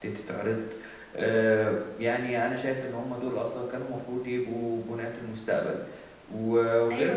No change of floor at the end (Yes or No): Yes